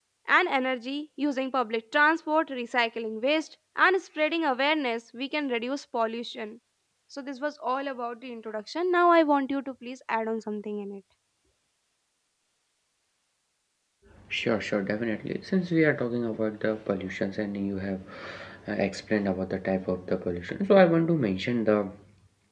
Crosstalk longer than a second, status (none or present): none